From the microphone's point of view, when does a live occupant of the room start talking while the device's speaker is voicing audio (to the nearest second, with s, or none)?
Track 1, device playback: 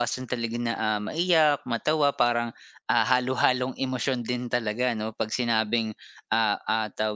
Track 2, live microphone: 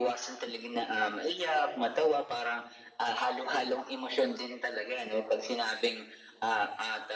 none